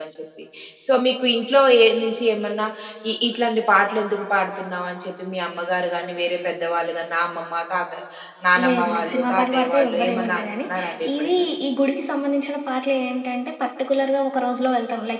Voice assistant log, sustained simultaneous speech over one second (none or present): present